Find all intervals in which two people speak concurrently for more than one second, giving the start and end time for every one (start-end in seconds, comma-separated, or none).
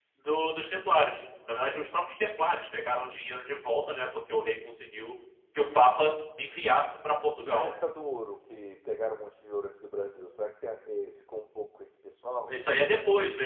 none